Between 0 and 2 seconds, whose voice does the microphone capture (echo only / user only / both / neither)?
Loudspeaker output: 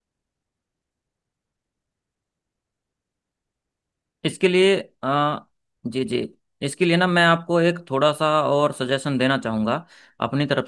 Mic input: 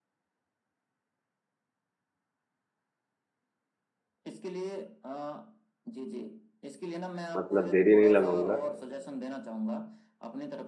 neither